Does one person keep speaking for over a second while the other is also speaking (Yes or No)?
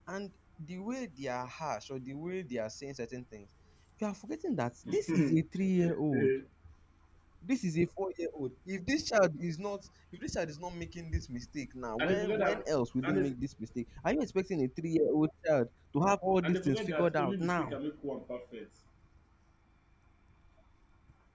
Yes